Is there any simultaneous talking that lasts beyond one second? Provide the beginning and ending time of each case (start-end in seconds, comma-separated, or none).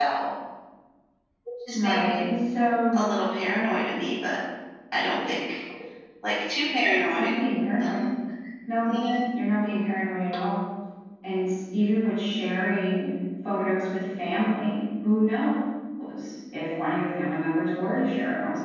none